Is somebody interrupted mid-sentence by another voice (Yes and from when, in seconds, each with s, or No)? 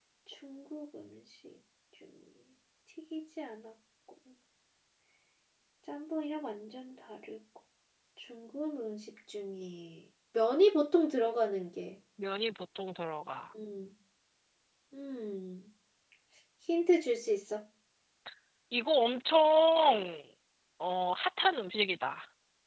No